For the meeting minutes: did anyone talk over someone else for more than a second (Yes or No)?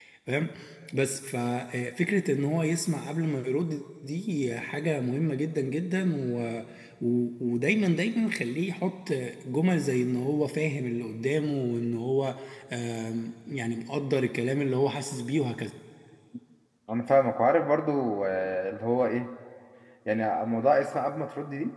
No